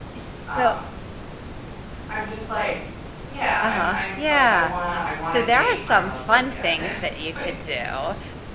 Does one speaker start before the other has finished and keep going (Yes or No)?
Yes